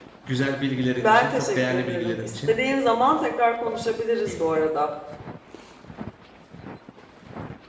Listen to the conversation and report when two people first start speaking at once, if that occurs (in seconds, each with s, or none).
1.0 s